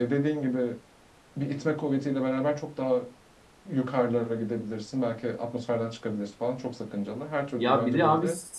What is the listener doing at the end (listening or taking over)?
taking over